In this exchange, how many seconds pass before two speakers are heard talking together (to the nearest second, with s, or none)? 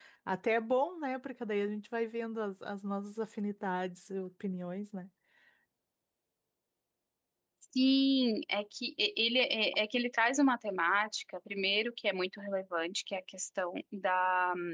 none